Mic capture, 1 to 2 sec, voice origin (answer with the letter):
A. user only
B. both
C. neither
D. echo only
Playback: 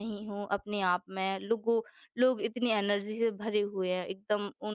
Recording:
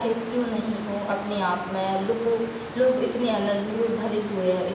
D